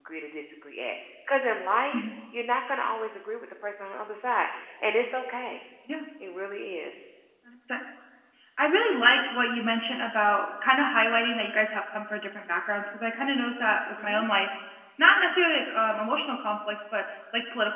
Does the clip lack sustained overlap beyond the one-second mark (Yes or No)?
Yes